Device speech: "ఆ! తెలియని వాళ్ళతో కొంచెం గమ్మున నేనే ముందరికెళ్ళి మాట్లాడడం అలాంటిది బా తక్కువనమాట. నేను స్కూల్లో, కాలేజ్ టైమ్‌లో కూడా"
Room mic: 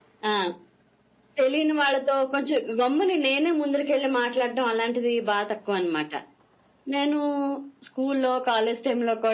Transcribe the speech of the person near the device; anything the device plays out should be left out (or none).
none